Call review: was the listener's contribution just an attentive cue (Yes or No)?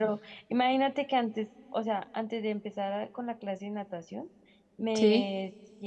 Yes